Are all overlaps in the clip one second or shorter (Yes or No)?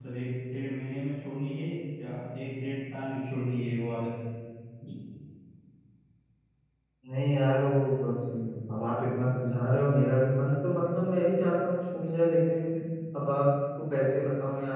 Yes